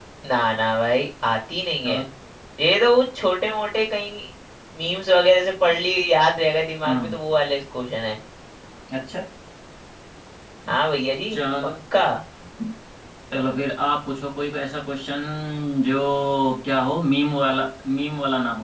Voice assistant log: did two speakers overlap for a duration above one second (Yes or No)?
No